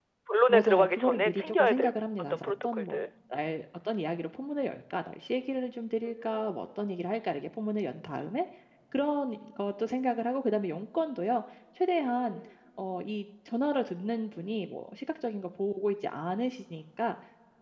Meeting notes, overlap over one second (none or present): present